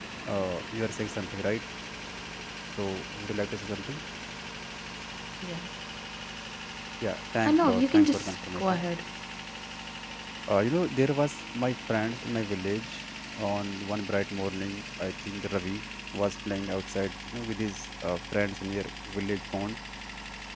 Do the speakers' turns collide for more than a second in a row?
Yes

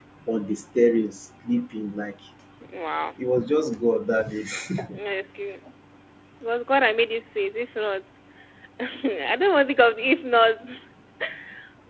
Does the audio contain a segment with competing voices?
No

